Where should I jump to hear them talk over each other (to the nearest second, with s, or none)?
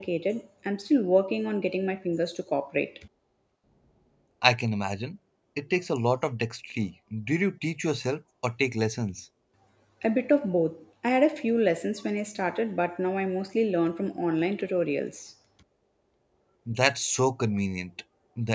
none